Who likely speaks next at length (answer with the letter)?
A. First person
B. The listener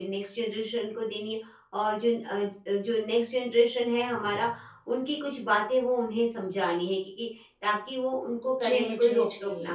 B